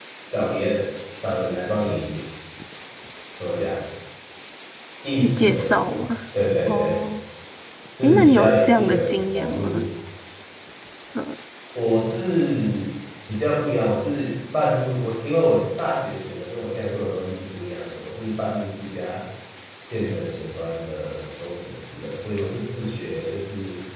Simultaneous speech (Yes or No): Yes